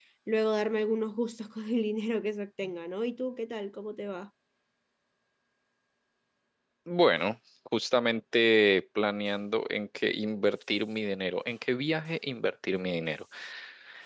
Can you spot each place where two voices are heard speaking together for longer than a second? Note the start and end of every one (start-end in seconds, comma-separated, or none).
none